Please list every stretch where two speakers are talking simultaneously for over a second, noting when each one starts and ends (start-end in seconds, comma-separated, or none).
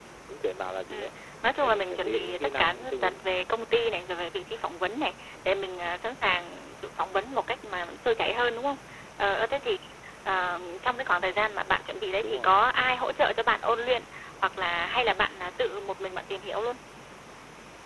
1.6-3.2